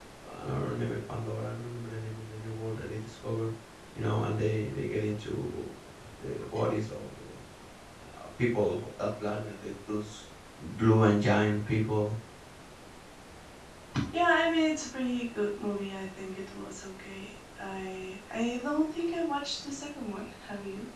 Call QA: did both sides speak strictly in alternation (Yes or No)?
Yes